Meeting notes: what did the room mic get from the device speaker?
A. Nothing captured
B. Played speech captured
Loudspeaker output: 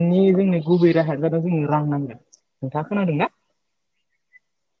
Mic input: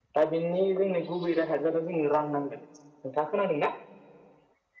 B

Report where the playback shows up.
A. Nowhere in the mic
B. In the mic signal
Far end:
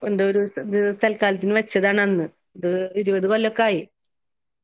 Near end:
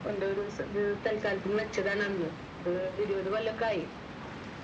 B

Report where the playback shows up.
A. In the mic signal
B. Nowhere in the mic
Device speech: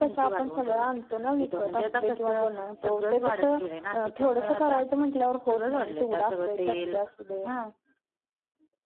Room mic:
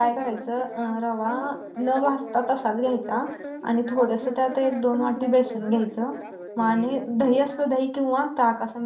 A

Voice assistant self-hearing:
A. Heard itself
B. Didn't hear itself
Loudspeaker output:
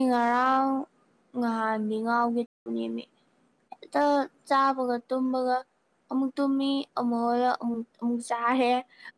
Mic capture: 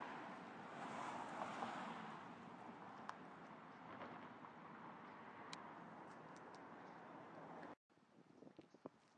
B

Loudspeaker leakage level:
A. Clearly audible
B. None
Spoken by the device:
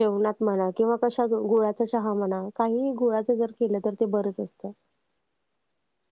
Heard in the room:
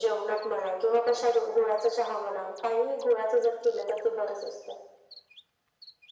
A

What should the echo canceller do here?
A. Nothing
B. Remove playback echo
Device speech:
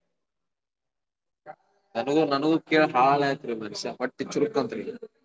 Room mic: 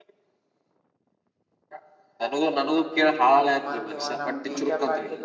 B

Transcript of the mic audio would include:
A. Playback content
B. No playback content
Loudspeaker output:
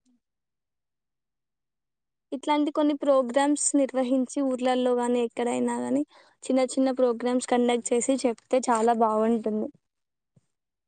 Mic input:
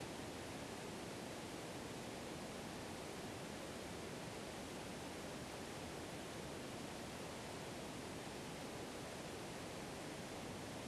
B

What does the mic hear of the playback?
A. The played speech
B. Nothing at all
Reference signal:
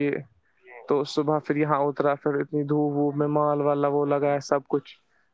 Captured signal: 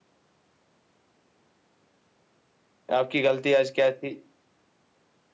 B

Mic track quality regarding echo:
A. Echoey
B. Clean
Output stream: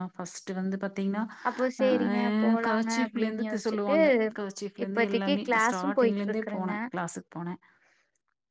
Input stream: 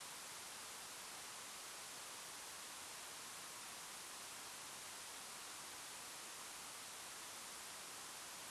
B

